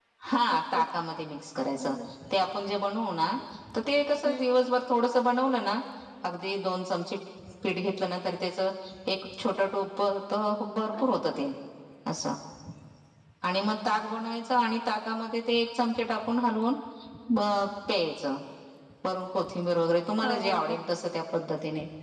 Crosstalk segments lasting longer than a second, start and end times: none

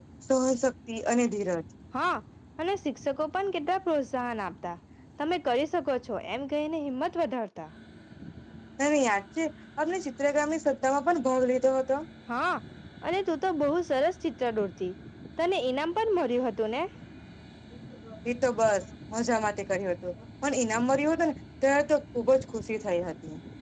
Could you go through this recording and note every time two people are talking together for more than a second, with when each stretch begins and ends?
none

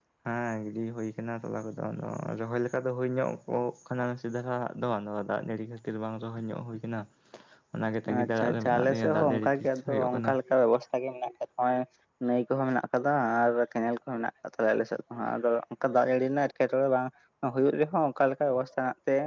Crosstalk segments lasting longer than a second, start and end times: 8.2-10.3

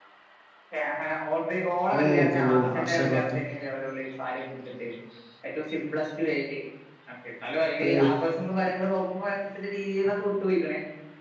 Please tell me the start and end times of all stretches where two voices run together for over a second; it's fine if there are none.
1.9-3.4

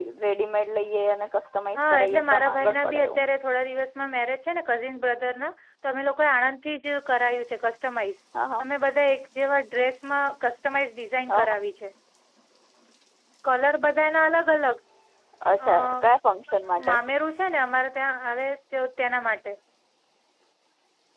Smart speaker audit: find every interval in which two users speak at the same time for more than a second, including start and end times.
1.8-3.2

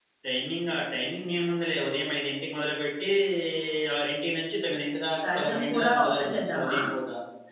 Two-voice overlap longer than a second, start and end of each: 5.2-6.7

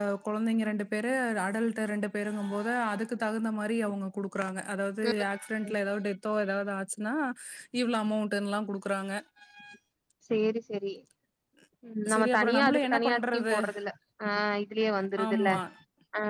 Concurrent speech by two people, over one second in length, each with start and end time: 12.1-13.6

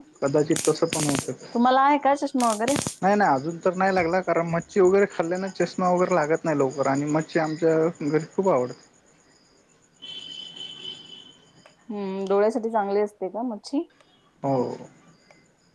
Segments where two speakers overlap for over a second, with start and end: none

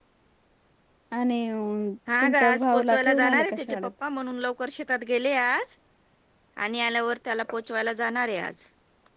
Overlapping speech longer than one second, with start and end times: 2.2-3.8

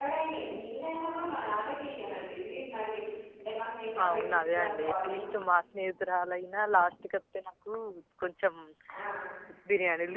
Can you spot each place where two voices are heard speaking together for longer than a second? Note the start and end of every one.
4.0-5.3

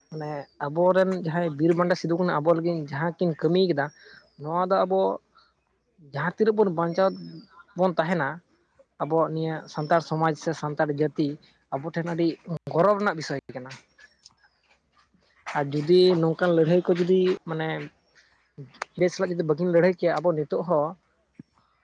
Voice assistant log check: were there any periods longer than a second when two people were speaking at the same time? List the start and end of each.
none

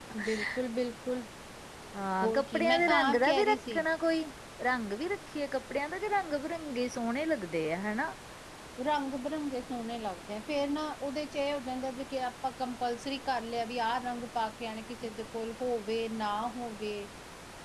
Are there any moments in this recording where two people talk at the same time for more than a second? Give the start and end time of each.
2.4-3.9

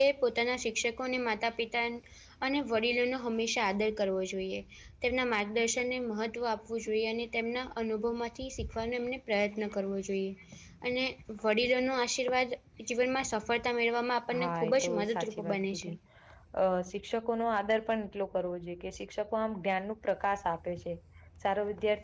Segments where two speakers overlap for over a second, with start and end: 14.4-15.9

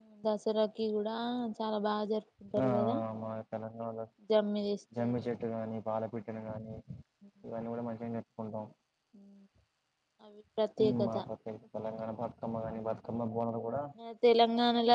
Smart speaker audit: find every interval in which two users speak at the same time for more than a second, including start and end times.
none

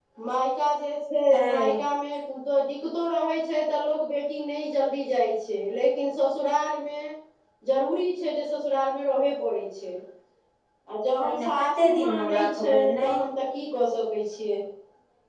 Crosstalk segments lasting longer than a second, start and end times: 11.2-13.2

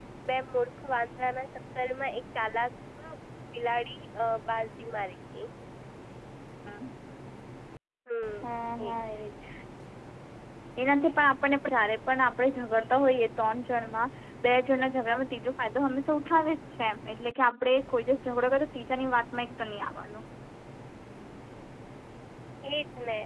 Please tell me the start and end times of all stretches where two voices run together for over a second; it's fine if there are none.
none

